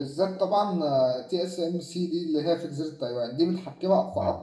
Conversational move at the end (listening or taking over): listening